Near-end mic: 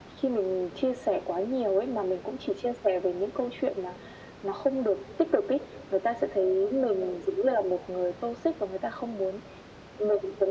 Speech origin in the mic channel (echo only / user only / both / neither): echo only